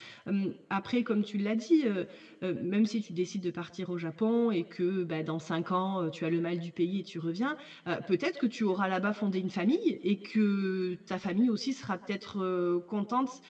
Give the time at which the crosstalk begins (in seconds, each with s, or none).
none